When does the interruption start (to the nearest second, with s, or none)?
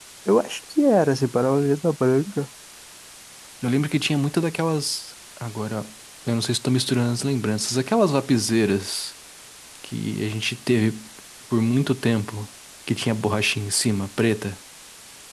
none